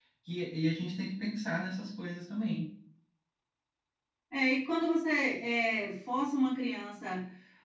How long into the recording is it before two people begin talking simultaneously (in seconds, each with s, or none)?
none